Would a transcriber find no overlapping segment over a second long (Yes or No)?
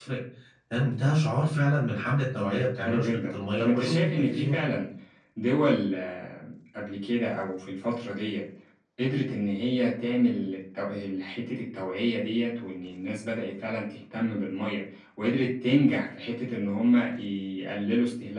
No